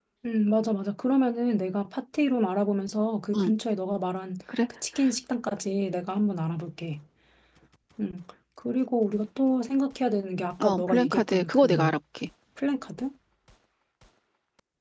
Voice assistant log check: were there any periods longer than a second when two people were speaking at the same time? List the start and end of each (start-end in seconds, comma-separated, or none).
10.6-11.9